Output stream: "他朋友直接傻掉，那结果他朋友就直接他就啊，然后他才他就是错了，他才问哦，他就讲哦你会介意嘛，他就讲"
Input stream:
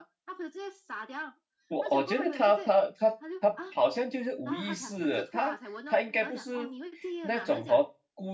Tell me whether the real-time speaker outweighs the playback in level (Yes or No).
Yes